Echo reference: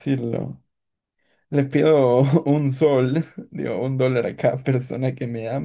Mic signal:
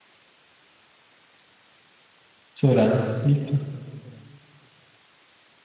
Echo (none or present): none